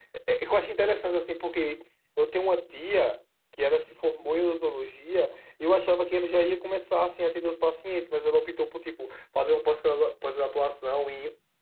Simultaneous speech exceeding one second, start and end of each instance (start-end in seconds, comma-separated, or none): none